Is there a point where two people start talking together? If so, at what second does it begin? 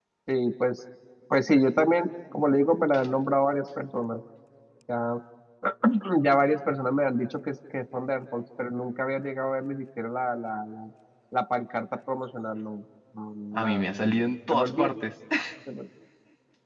13.5 s

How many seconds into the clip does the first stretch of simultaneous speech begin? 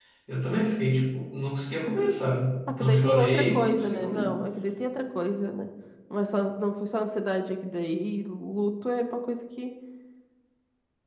2.7 s

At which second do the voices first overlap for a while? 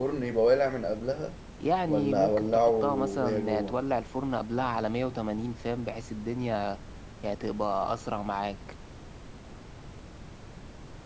1.9 s

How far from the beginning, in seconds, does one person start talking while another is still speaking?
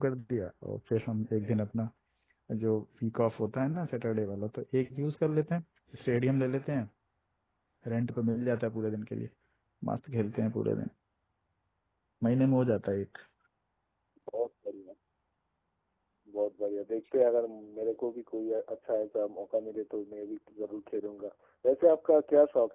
none

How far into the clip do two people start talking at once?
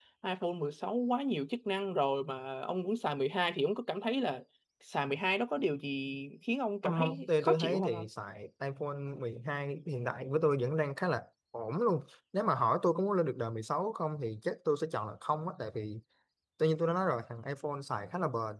6.8 s

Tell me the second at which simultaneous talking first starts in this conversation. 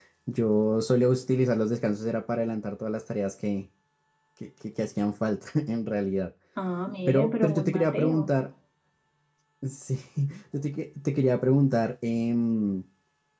7.1 s

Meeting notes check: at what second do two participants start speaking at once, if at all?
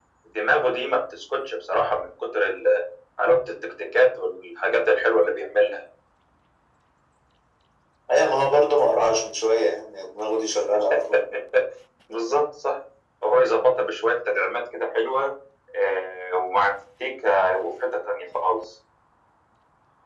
none

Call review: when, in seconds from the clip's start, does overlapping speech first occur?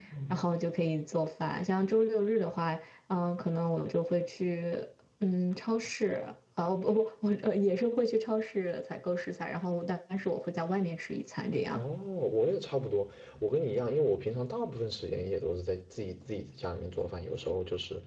none

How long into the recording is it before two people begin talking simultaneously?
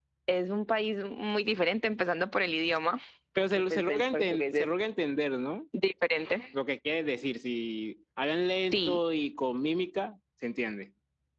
3.5 s

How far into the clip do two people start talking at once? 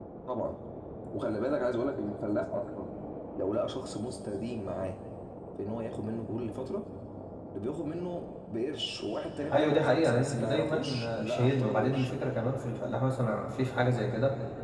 9.5 s

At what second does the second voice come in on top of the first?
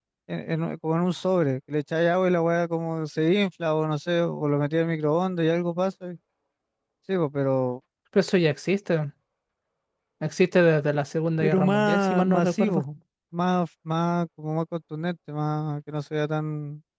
11.4 s

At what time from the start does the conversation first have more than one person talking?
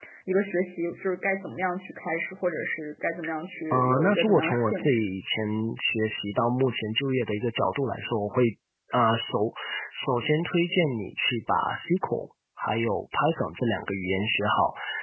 3.7 s

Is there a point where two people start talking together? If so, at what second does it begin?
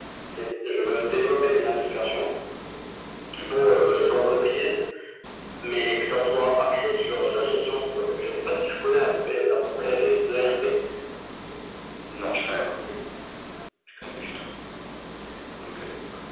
none

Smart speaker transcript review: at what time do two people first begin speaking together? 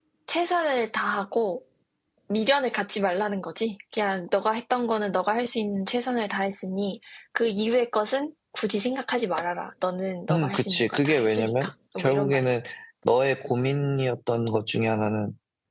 10.3 s

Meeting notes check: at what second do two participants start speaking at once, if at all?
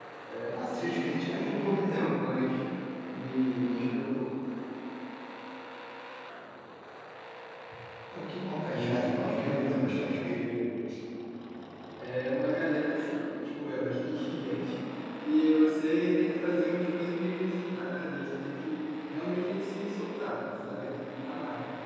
0.5 s

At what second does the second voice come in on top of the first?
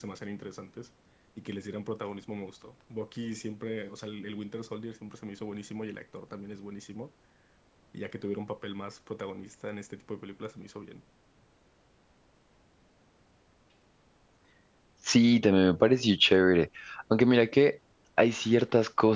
none

